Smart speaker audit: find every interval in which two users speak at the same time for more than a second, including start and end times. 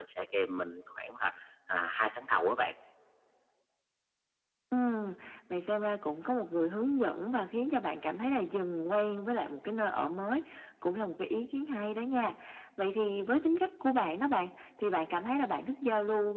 none

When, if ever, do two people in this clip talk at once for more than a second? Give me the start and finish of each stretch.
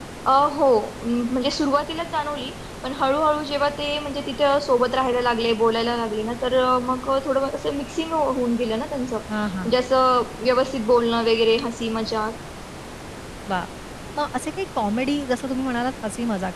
none

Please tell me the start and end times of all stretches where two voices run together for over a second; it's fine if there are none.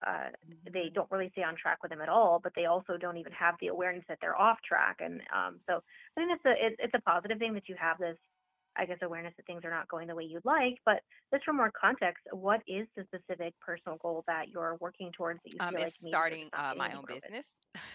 15.6-17.2

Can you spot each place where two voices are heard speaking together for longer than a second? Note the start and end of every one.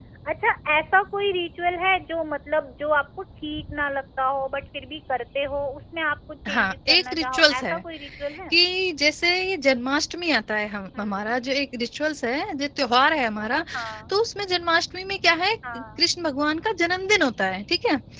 6.5-7.7

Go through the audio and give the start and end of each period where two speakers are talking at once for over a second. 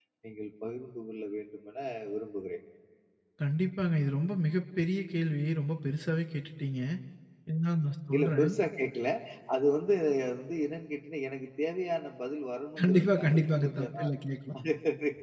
12.8-14.1

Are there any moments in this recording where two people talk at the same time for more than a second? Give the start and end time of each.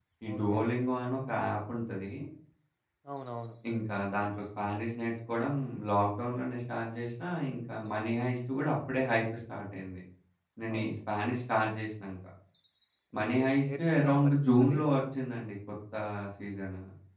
13.2-14.8

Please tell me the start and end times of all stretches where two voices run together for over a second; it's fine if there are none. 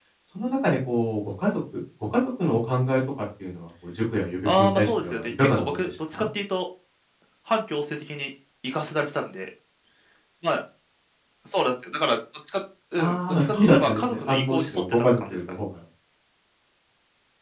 4.5-6.2, 13.0-15.4

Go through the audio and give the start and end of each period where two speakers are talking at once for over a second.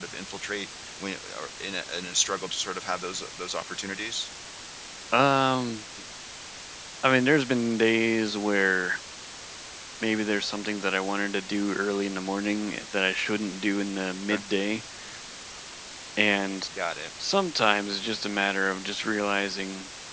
none

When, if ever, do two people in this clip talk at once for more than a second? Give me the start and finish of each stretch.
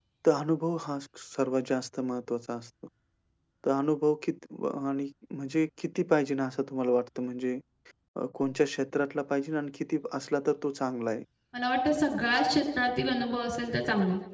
none

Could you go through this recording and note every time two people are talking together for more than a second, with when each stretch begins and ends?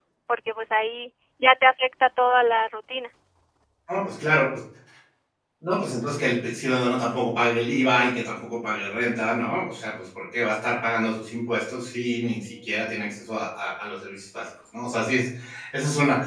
none

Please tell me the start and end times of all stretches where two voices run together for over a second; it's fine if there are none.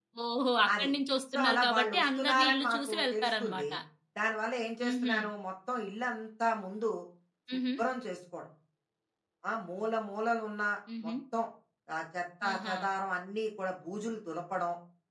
1.3-3.6

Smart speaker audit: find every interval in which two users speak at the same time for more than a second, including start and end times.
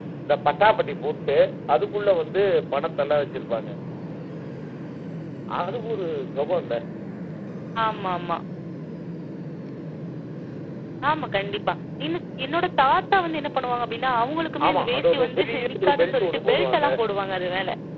14.7-16.9

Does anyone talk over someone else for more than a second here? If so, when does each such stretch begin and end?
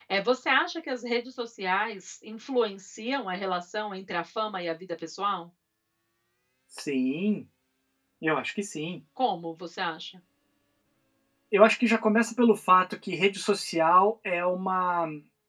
none

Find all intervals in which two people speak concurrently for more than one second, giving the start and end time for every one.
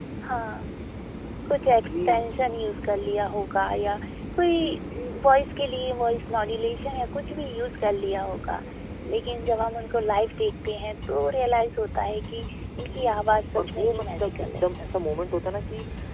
12.9-14.7

